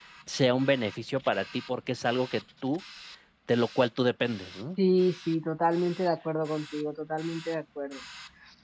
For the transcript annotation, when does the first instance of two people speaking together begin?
none

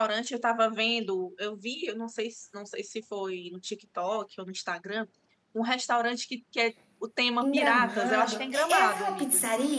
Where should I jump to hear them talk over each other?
7.4 s

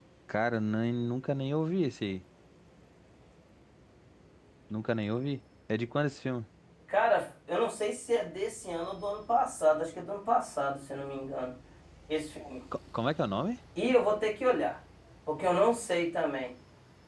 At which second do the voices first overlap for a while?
none

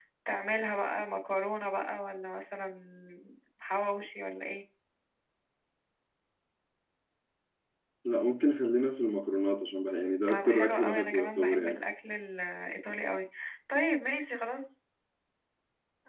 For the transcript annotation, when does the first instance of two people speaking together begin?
10.3 s

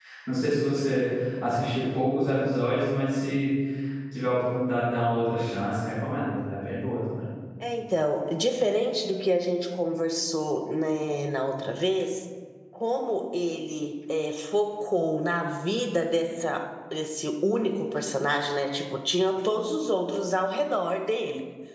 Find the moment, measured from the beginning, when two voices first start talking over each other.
none

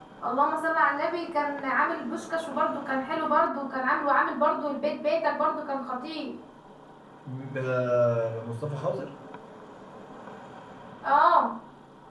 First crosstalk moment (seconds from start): none

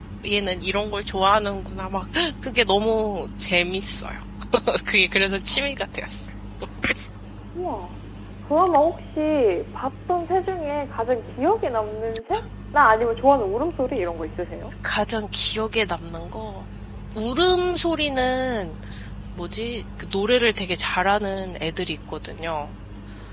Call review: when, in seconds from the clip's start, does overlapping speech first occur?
none

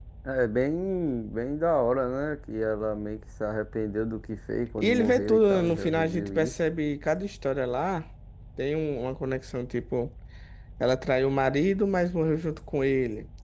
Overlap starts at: 4.8 s

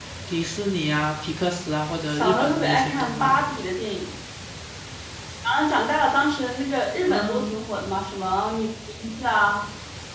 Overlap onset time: 2.1 s

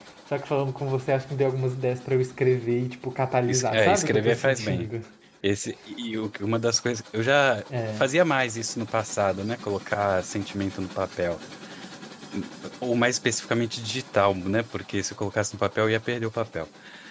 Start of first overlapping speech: 3.5 s

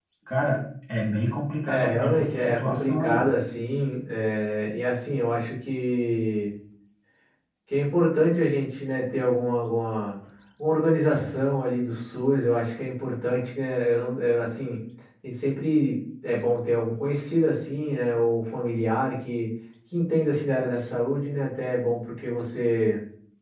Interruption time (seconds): 1.7 s

